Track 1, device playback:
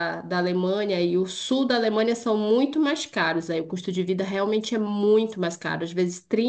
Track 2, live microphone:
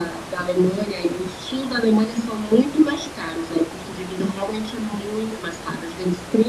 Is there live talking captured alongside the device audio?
No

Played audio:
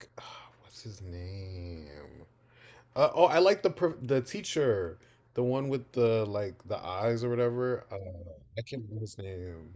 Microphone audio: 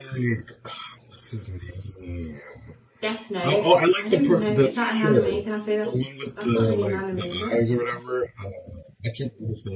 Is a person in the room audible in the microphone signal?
Yes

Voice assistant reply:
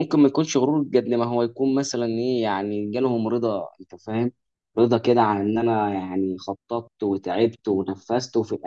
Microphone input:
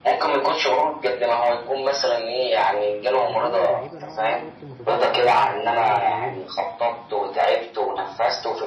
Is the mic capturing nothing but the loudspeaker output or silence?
No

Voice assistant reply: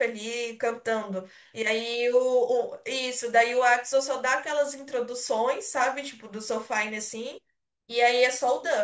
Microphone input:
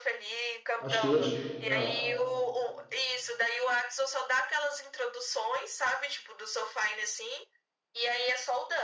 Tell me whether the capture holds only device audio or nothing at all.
No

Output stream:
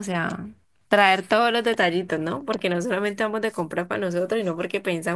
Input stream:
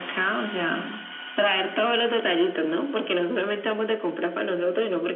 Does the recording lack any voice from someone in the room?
Yes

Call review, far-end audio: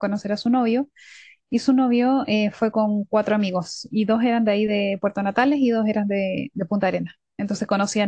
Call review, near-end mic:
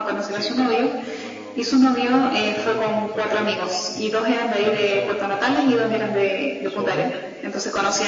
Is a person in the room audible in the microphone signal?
Yes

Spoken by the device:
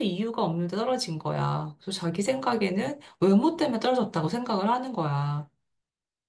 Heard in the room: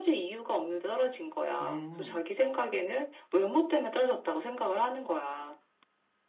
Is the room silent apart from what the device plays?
No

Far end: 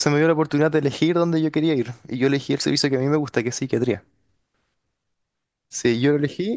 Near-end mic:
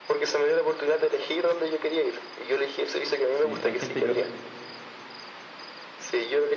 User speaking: Yes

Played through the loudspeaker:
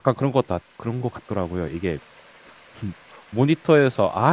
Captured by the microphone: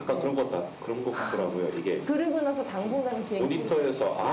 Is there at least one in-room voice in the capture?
Yes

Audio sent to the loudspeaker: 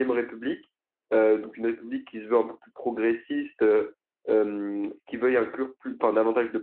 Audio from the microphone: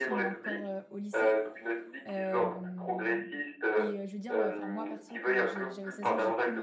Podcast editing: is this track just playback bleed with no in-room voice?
No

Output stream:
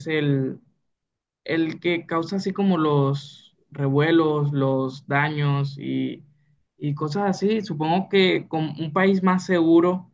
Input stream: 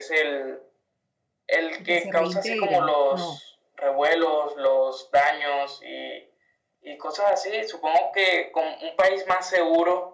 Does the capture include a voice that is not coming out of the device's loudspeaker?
Yes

